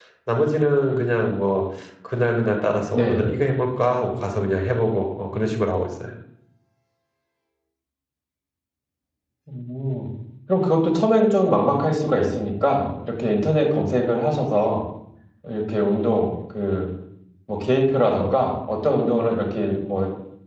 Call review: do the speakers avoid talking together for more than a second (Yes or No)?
Yes